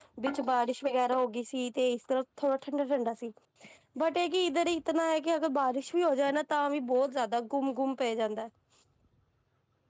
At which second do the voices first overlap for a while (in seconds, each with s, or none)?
none